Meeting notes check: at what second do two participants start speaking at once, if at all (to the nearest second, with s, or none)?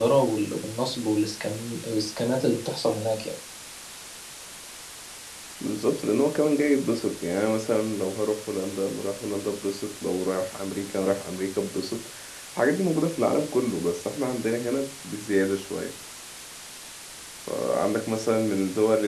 none